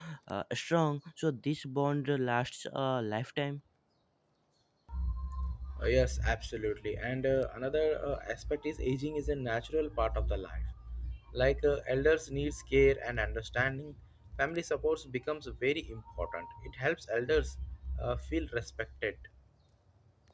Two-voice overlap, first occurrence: none

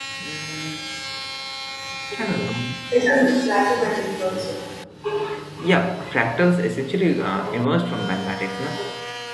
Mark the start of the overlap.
none

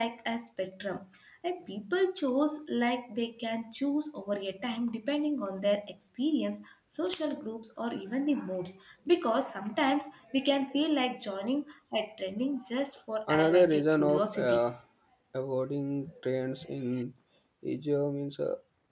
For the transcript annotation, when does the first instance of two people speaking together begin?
13 s

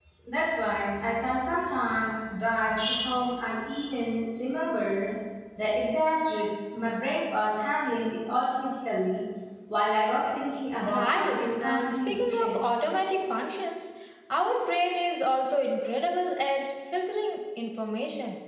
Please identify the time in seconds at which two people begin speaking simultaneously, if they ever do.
11 s

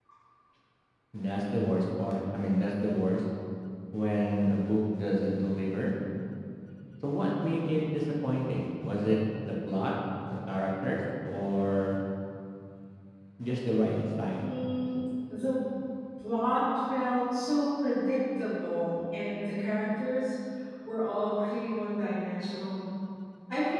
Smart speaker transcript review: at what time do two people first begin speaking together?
none

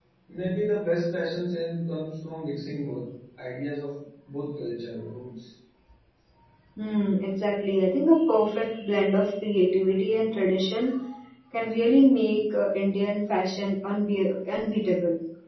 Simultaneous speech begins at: none

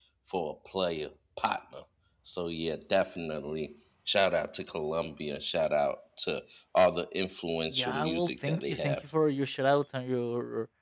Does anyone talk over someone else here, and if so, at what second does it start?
8 s

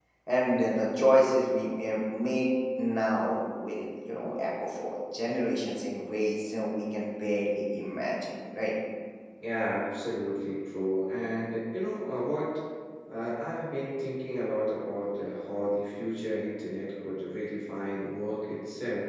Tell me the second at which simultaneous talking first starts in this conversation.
none

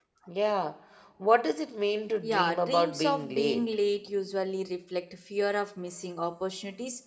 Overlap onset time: 2 s

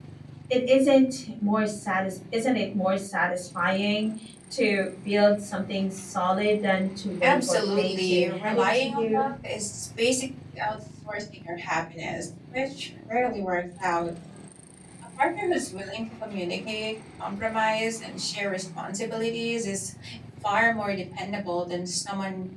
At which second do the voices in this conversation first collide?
7 s

